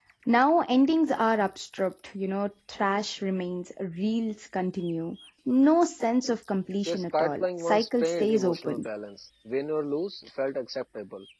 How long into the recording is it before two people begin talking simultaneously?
7 s

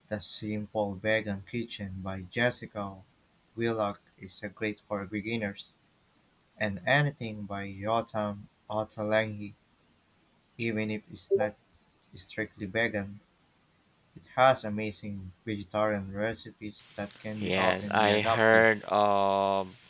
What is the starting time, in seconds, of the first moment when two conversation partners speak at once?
17 s

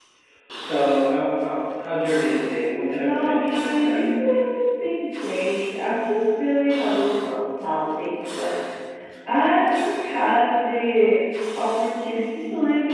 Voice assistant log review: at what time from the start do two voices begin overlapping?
3 s

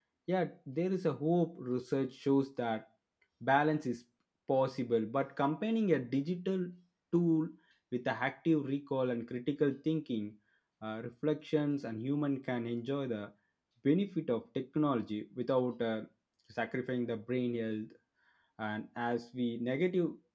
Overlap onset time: none

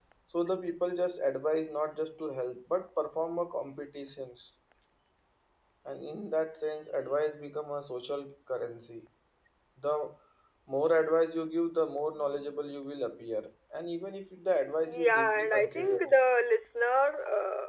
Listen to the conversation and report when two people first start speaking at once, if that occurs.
15 s

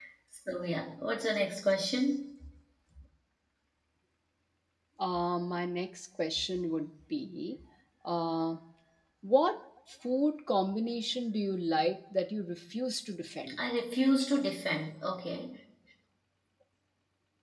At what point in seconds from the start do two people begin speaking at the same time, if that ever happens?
none

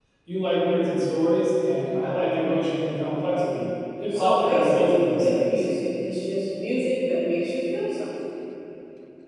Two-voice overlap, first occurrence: 4 s

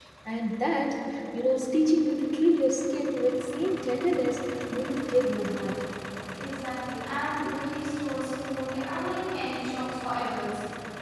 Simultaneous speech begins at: none

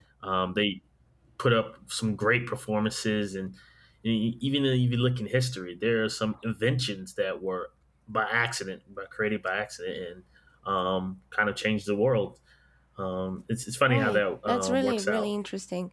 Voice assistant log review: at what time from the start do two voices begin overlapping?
14 s

